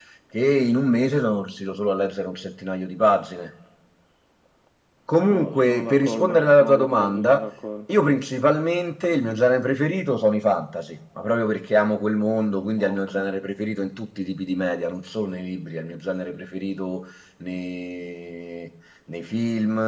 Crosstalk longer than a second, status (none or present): present